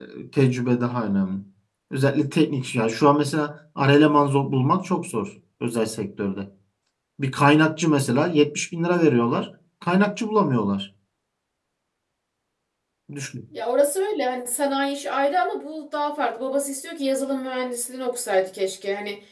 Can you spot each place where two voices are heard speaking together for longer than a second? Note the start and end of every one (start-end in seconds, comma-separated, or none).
none